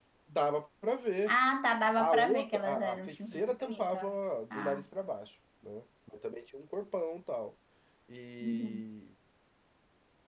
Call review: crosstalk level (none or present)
present